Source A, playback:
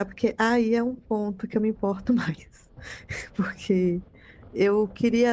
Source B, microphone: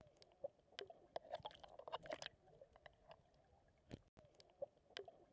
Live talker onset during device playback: none

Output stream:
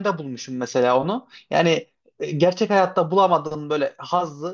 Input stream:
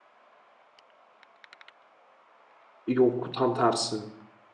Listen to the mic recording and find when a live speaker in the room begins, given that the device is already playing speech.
2.9 s

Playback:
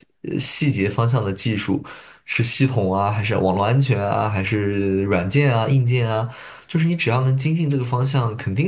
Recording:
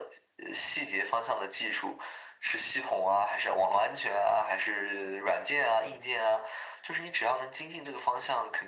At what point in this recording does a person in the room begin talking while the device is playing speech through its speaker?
none

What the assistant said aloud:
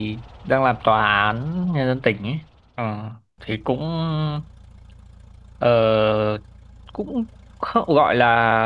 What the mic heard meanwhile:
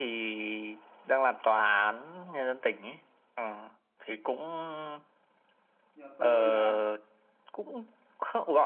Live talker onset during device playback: 5.9 s

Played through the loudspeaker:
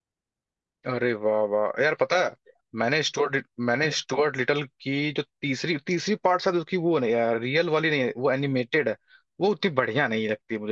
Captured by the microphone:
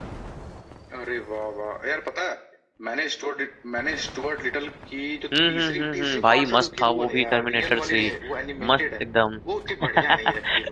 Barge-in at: 5.3 s

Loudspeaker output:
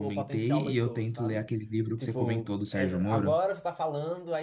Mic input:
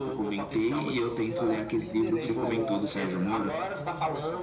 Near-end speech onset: 1.1 s

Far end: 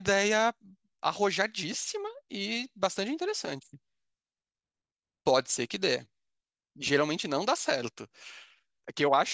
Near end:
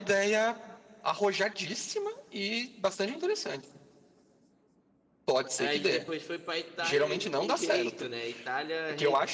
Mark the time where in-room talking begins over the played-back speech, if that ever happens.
5.6 s

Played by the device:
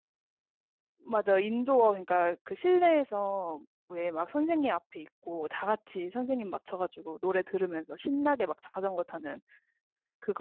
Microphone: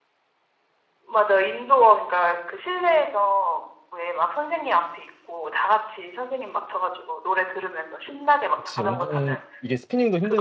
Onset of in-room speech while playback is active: 8.5 s

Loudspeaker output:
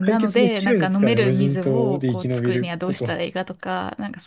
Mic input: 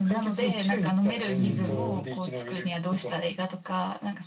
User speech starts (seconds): 1.4 s

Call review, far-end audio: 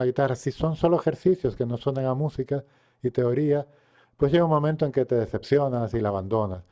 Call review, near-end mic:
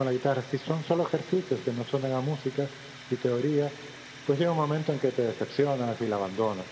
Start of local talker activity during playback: none

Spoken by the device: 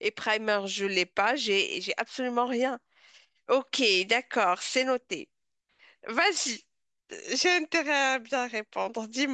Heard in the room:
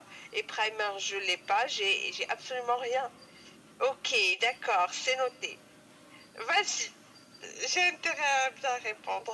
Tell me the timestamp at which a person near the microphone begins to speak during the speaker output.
none

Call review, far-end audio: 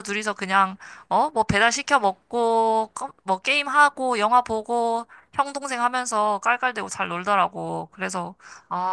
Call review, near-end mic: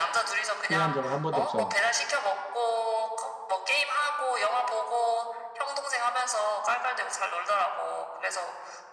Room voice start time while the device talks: 0.6 s

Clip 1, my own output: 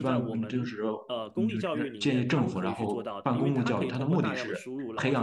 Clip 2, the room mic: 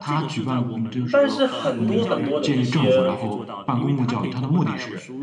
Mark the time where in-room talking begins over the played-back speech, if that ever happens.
1.1 s

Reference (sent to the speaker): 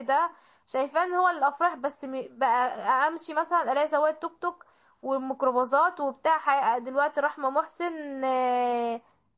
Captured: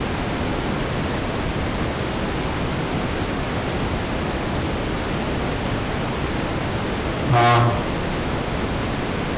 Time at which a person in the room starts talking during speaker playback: 7.3 s

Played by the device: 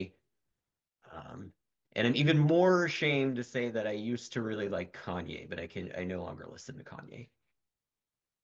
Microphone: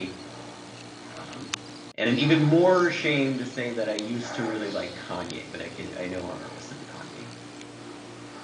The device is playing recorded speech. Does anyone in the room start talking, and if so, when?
none

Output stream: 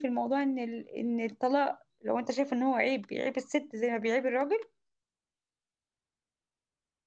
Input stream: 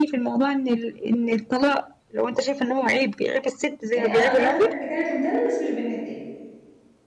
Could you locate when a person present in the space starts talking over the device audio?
3.9 s

